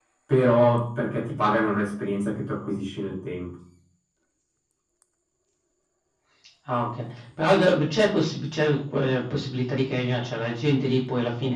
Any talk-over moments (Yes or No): No